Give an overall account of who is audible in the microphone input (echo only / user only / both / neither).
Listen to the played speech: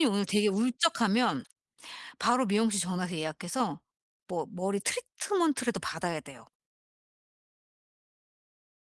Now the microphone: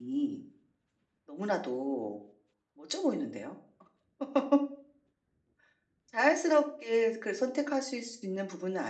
user only